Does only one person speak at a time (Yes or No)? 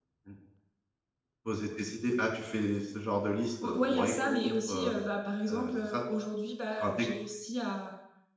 No